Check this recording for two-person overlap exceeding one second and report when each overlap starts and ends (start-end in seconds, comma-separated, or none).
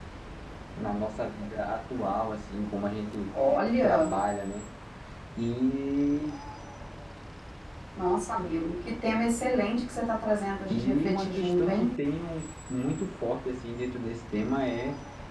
10.7-11.9